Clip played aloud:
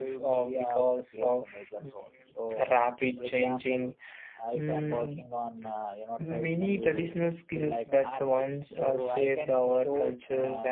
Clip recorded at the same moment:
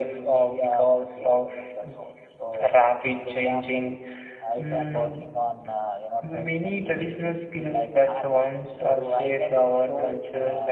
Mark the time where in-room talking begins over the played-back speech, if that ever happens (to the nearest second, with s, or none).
none